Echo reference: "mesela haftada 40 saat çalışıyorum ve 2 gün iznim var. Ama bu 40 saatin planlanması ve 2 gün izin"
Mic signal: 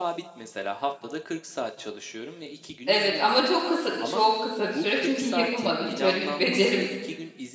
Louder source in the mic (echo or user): user